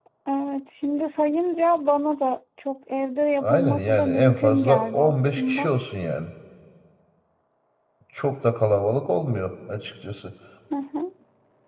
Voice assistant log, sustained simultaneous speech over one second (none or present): present